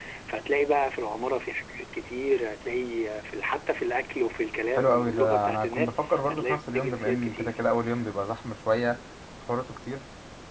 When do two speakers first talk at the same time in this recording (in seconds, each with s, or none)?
4.8 s